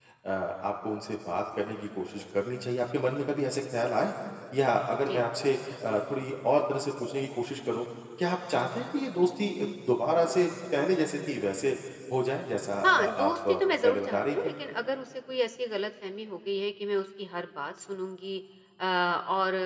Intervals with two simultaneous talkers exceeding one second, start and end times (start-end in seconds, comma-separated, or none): 12.8-14.4